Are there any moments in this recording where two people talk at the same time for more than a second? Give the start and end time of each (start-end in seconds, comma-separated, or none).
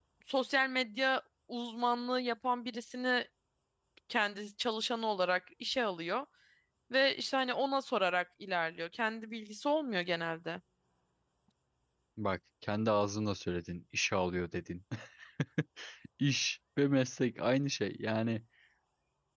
none